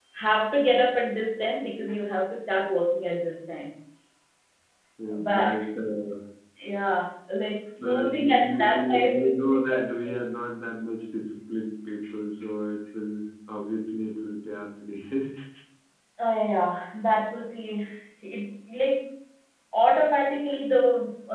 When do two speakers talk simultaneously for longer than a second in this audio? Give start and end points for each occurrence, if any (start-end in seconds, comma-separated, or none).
7.8-9.8